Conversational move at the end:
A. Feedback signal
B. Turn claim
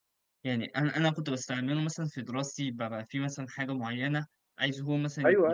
A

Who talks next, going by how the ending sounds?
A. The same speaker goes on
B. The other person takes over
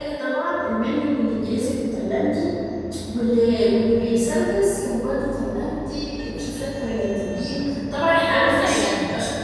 A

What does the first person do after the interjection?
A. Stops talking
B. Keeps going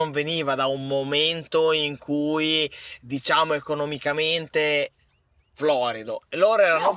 B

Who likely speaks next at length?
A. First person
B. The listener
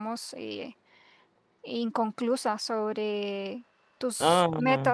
A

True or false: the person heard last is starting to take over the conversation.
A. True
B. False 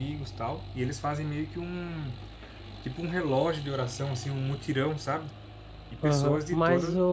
A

